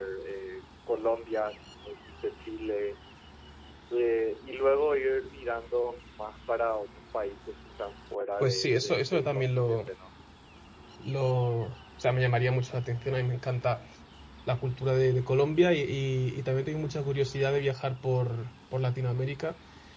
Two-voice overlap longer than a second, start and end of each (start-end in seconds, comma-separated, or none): 8.4-9.8